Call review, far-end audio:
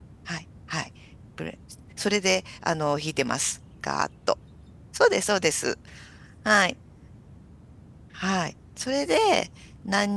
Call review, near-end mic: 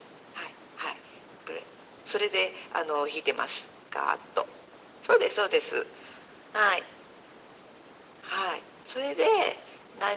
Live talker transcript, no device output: none

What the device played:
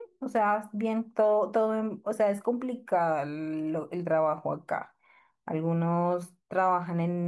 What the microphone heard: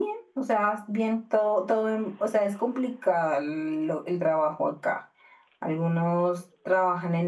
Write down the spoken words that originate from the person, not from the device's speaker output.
none

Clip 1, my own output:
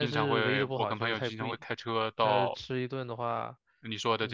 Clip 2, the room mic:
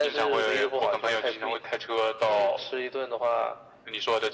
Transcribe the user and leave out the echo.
none

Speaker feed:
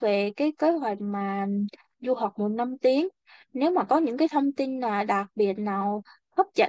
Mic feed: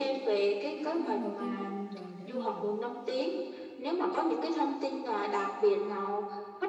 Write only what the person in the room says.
20 năm đầu tiên của cuộc đời để đi học

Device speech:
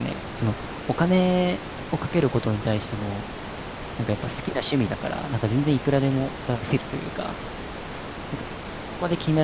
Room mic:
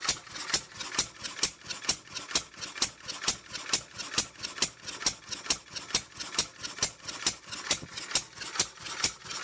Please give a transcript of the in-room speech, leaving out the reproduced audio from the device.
none

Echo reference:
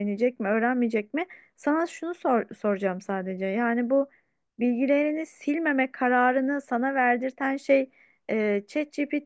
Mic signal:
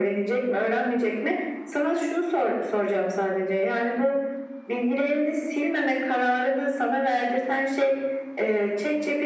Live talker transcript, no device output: none

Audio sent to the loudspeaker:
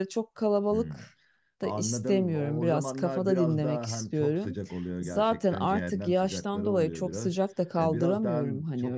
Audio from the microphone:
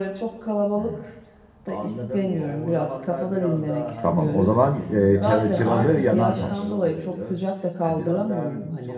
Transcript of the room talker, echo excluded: Tamam, o zaman e, Çar- Çıralı Yanartaş.

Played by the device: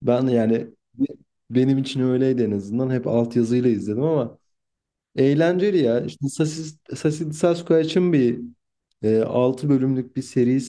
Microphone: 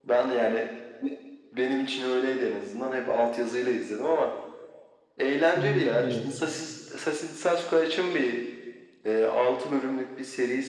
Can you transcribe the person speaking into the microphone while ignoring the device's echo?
Hmm, evet.

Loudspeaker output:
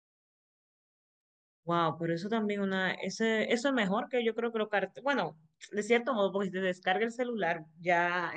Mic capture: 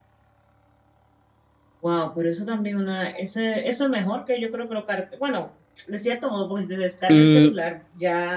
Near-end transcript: Mm,

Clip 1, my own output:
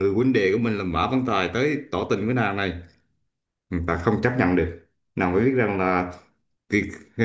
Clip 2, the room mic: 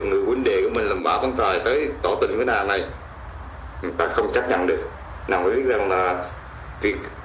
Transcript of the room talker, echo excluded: none

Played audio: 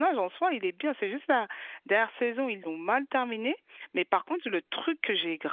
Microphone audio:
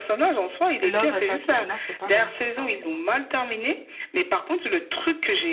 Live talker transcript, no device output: Love, elle s'appelait. Non, c'était pas Love. Pardon, non.

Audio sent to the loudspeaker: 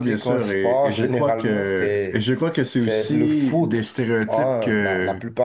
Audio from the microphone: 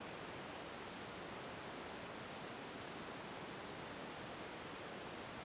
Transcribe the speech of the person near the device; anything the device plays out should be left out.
none

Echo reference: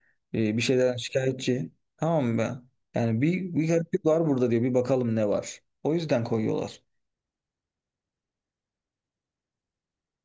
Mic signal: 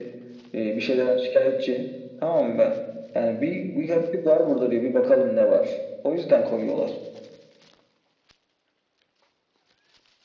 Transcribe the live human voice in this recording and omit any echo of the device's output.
none

